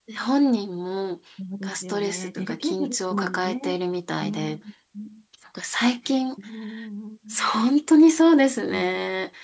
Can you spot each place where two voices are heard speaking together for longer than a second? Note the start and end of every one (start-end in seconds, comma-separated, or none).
1.6-3.5